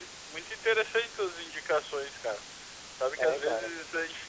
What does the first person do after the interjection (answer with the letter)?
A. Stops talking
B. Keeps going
B